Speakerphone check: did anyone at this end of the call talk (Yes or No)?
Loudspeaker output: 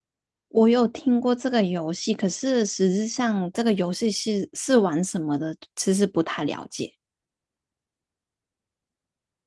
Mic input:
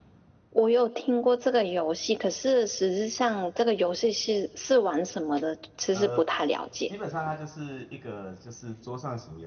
Yes